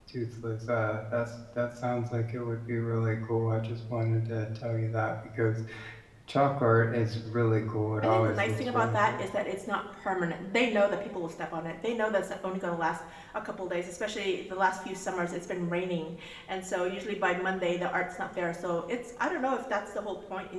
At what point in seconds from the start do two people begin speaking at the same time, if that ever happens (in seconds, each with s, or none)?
8.0 s